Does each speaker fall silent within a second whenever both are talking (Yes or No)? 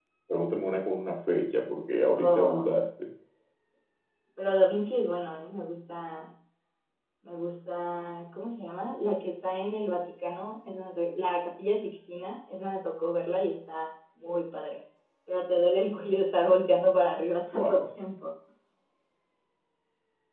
Yes